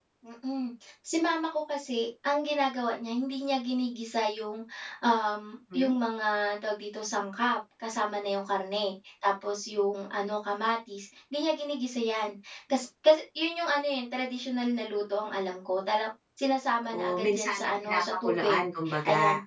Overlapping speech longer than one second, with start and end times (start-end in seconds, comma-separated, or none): 16.9-18.6